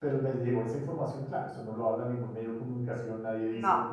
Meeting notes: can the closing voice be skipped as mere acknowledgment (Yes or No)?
Yes